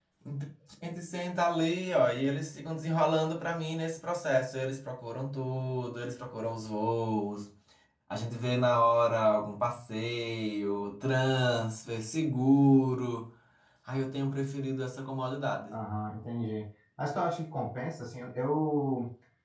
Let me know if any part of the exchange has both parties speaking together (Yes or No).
No